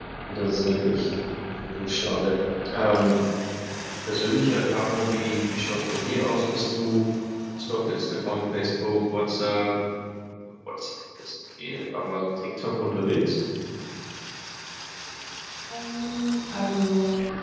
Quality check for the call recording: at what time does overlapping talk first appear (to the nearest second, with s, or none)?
none